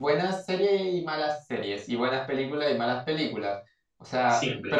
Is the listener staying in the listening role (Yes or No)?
Yes